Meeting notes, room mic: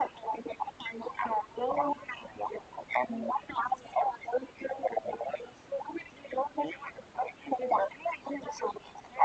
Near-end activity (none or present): none